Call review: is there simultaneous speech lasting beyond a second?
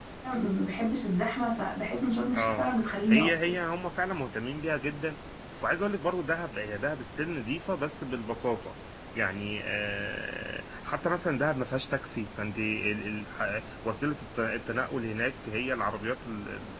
No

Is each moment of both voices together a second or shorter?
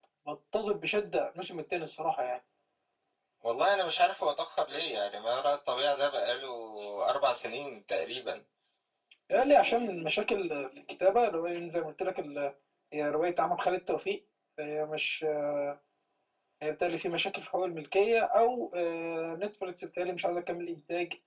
Yes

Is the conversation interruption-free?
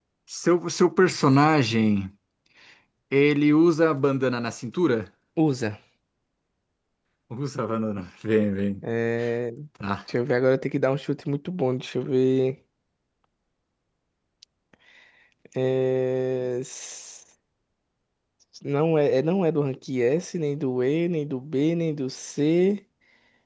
Yes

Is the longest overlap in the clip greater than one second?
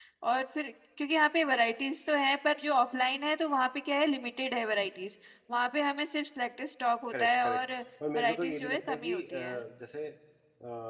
Yes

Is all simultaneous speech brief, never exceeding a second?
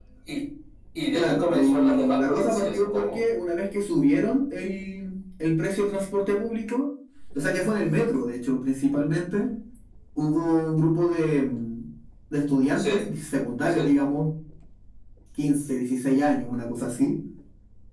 No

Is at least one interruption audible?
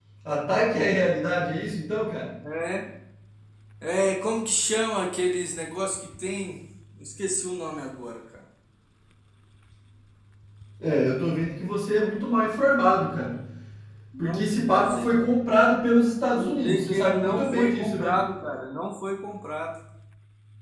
Yes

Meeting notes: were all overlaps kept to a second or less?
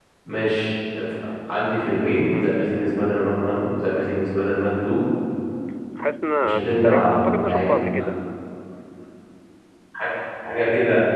No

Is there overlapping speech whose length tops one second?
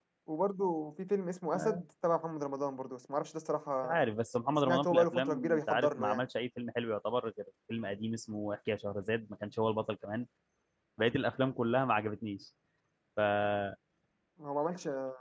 Yes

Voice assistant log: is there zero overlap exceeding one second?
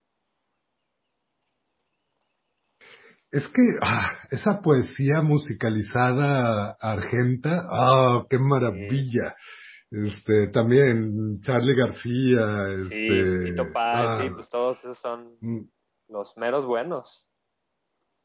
No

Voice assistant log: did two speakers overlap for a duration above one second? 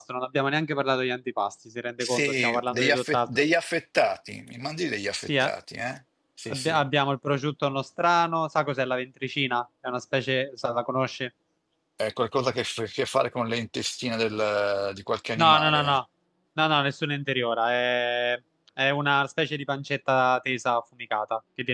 Yes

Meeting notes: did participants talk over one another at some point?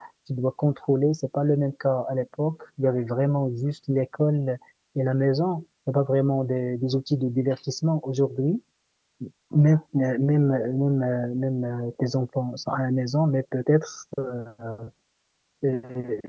No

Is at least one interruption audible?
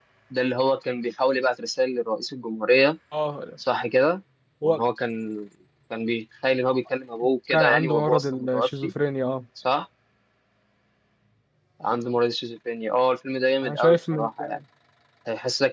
Yes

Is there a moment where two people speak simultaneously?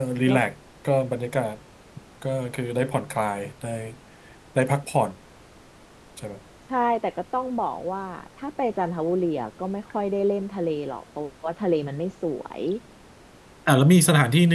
No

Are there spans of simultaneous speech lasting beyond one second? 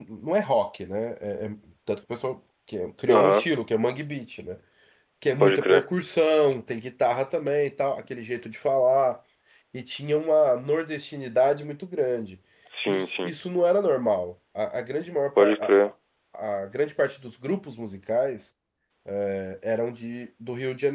No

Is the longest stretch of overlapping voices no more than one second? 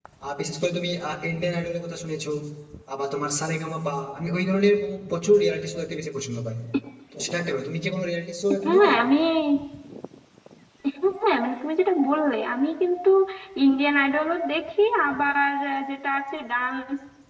Yes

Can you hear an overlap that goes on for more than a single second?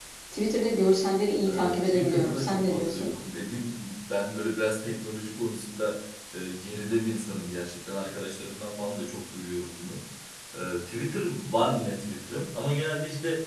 Yes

